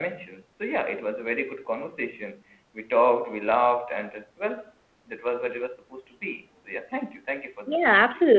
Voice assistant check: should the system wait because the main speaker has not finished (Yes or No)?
No